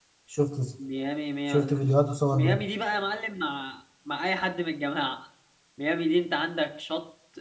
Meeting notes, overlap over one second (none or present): none